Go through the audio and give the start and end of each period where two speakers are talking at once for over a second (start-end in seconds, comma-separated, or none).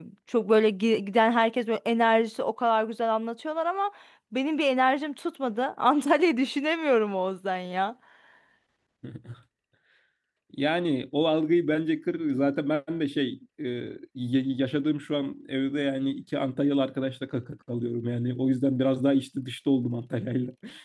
none